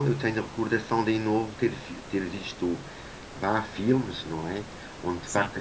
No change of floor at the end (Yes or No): Yes